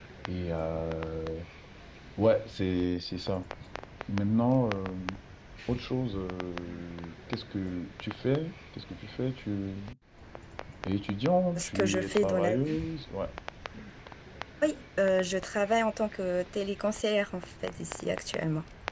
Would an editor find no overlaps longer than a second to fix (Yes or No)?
No